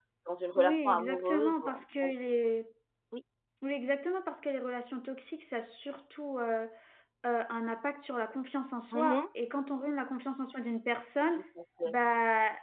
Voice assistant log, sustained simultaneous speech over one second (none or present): present